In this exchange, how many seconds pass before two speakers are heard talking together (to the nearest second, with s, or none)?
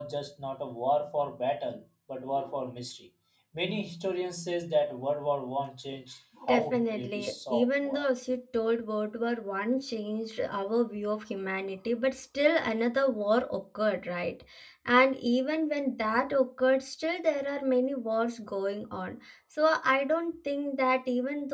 6 s